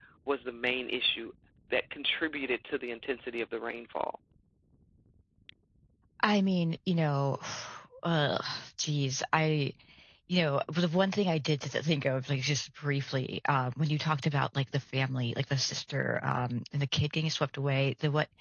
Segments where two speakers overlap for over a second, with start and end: none

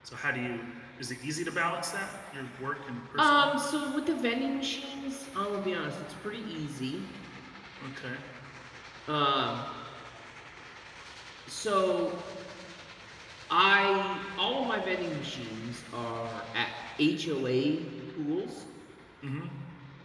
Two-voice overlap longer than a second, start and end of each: none

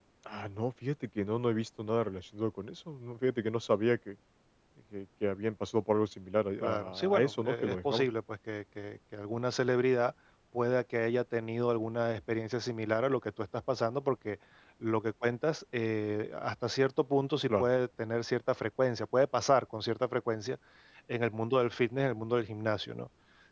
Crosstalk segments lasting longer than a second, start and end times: 6.6-8.1

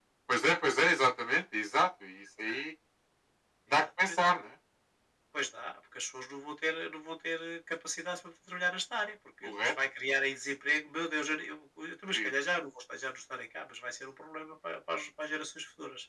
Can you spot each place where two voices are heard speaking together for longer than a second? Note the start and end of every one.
none

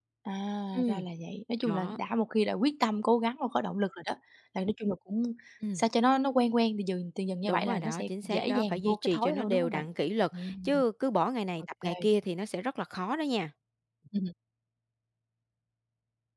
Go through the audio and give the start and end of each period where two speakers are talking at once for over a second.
7.5-9.8

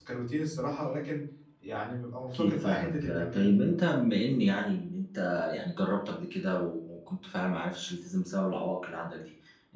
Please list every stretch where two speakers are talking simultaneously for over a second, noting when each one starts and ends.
2.3-3.6

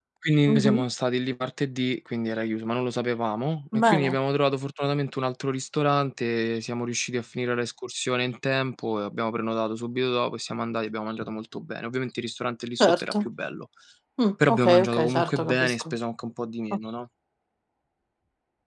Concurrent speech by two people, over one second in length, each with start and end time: 14.5-15.8

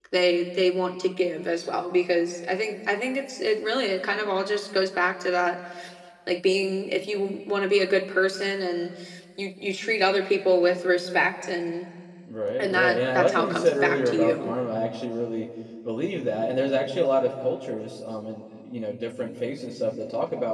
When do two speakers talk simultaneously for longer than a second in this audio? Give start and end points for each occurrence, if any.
12.6-14.5

